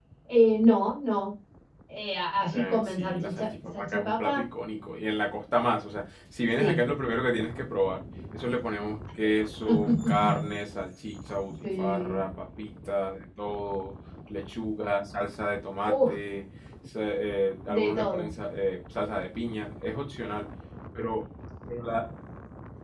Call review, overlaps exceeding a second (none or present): present